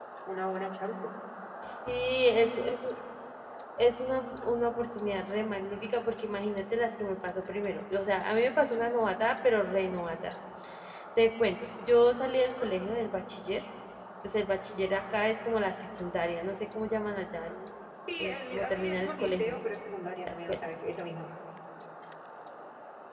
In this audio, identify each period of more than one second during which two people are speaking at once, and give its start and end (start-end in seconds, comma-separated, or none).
18.2-19.6